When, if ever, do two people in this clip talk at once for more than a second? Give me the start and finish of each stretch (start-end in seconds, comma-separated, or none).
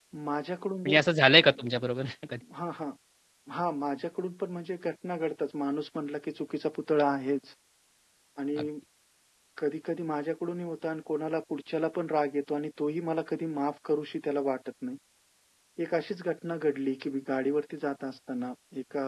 none